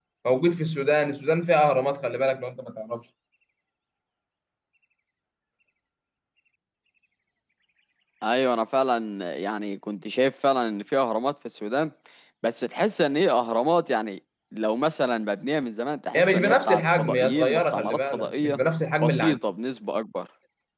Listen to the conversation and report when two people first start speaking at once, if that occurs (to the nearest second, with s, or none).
16 s